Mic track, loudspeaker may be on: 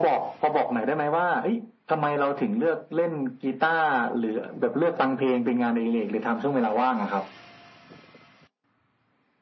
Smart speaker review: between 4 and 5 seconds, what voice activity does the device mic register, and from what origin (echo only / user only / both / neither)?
echo only